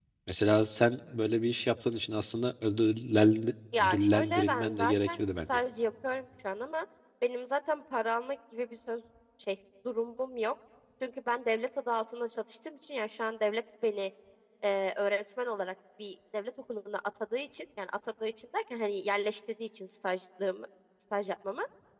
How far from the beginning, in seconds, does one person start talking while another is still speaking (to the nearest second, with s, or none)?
4 s